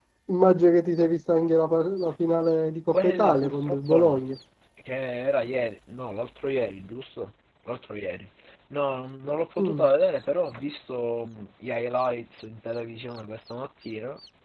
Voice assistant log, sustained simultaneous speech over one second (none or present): present